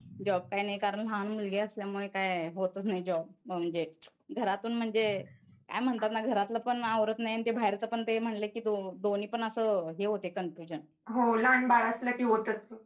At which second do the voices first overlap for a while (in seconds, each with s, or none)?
none